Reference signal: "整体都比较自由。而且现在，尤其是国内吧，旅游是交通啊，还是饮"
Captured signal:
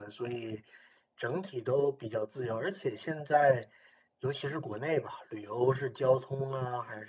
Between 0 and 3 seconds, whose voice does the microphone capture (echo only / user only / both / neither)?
echo only